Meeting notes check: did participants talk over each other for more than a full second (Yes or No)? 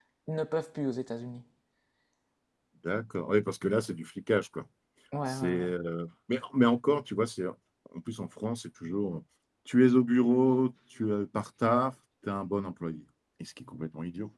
No